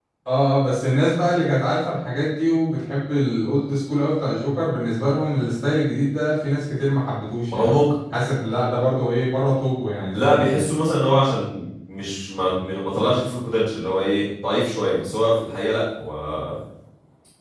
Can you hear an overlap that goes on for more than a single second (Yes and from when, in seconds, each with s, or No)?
No